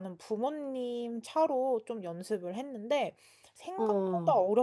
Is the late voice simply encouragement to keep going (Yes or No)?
Yes